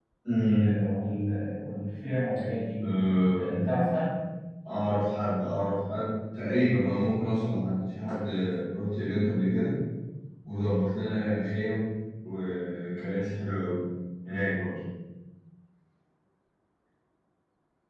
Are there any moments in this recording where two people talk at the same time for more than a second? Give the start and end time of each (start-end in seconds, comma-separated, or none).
none